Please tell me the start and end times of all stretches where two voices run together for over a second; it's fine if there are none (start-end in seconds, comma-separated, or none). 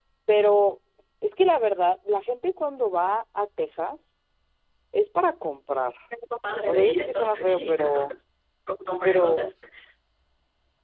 6.7-7.9